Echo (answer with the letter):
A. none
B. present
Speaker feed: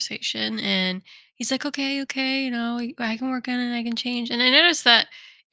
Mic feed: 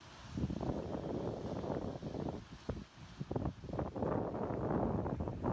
A